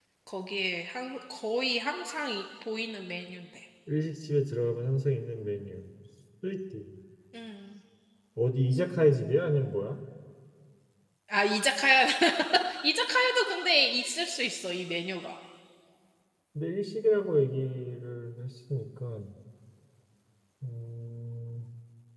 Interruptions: none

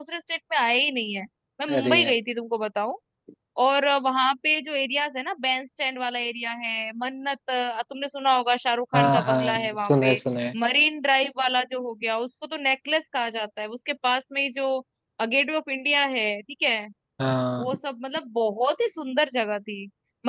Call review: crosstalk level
present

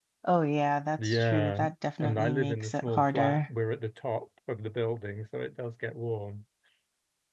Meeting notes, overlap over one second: present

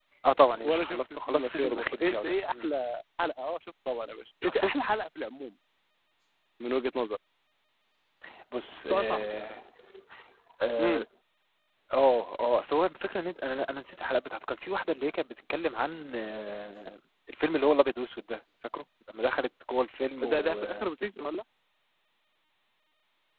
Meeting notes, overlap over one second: present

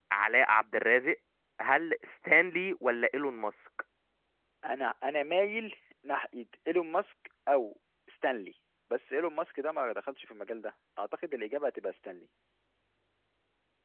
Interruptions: none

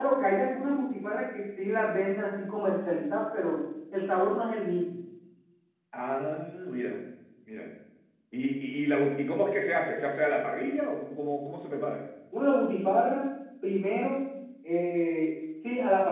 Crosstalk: none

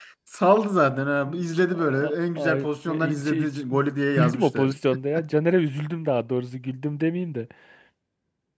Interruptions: present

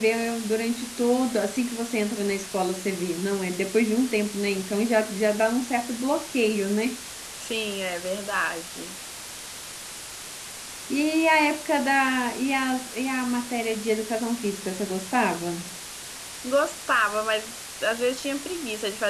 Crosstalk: none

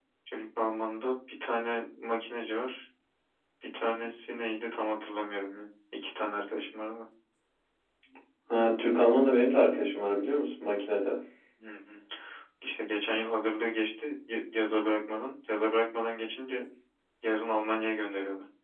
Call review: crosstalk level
none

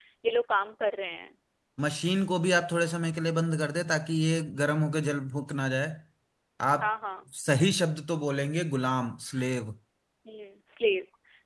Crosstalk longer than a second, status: none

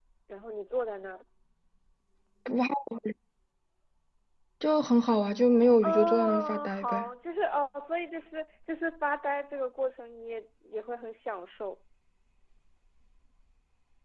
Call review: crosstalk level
present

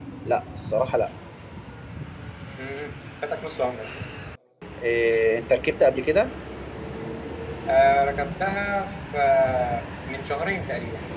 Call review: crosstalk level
none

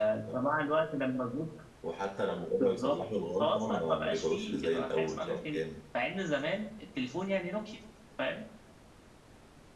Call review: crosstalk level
present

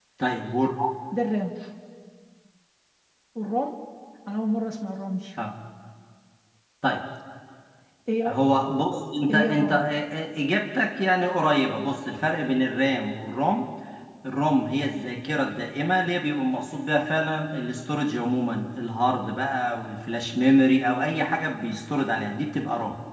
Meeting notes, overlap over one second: none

